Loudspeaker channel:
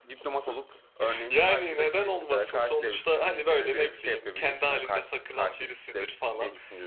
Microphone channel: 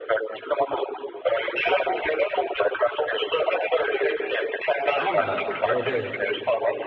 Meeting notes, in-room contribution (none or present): present